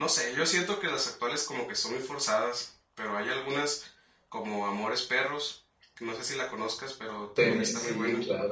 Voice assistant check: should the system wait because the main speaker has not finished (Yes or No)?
No